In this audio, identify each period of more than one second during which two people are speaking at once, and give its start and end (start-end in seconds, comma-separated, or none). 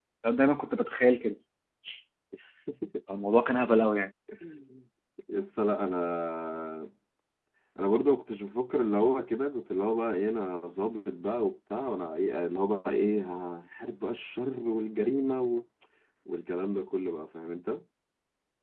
none